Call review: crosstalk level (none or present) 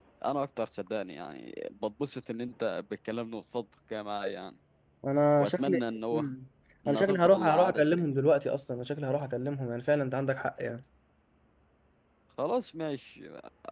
present